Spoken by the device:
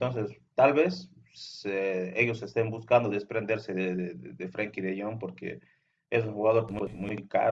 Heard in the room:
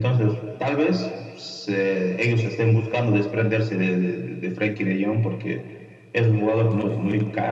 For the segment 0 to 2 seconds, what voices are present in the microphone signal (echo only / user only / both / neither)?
echo only